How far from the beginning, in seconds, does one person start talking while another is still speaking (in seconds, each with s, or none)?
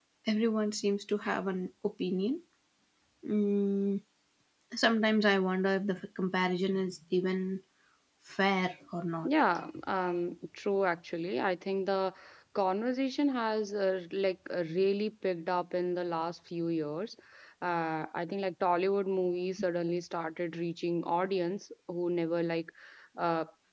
none